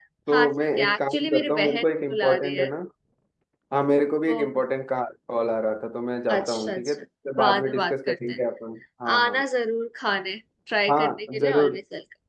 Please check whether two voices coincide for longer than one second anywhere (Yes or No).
Yes